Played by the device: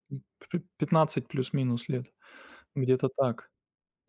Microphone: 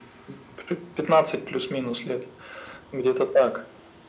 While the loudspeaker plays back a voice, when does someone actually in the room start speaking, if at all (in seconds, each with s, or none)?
none